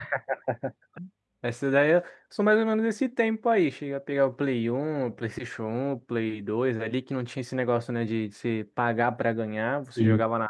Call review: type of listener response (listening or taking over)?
listening